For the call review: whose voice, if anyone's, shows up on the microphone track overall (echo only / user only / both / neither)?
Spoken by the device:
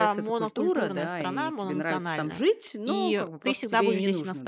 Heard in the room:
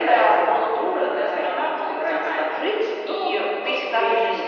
echo only